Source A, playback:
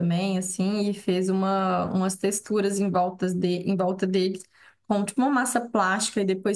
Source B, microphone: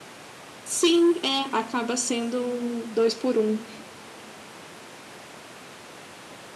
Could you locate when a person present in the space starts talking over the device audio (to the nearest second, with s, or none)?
1 s